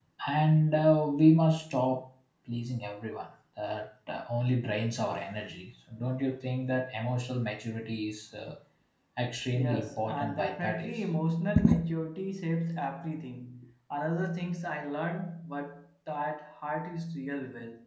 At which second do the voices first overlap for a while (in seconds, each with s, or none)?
9.5 s